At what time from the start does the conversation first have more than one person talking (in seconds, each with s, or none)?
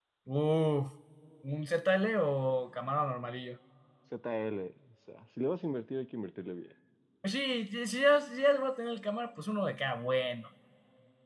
none